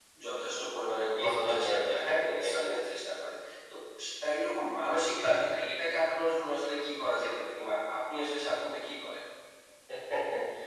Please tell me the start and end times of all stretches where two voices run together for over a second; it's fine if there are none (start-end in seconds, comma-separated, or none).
1.2-3.0